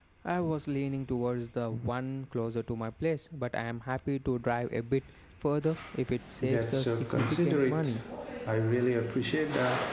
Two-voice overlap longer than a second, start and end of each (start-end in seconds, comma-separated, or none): 6.4-7.9